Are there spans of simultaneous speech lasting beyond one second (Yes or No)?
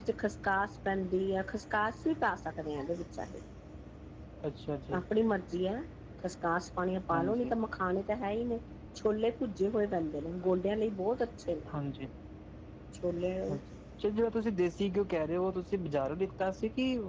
No